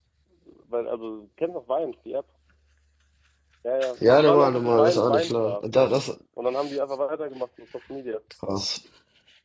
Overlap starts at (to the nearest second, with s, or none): 4 s